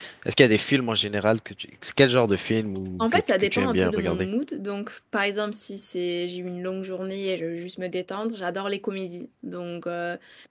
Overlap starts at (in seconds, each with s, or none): 3.0 s